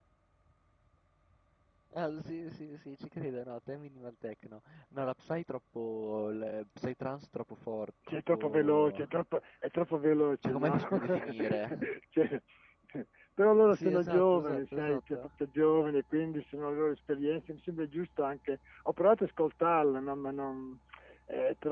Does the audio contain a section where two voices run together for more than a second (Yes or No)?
Yes